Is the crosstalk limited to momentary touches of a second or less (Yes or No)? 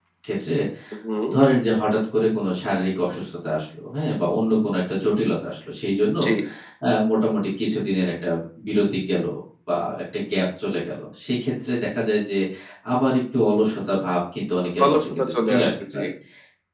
No